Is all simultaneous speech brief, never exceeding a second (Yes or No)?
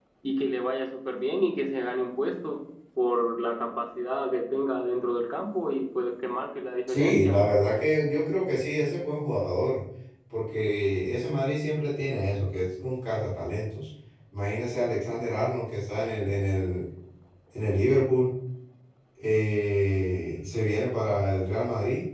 Yes